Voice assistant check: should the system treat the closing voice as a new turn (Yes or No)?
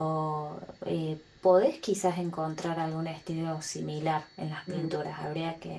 No